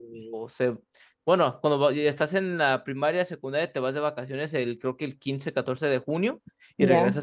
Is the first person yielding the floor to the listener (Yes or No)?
No